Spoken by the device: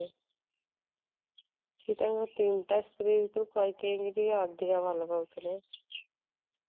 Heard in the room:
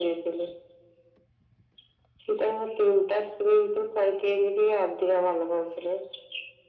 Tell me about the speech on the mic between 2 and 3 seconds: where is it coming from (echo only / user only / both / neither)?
echo only